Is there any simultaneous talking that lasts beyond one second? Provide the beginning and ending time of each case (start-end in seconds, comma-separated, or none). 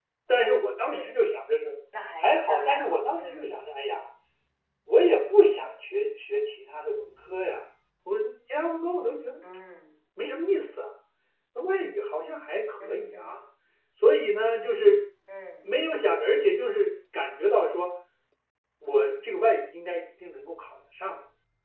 2.2-3.5